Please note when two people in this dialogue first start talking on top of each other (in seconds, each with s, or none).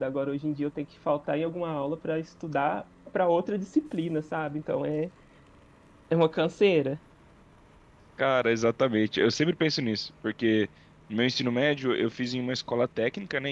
none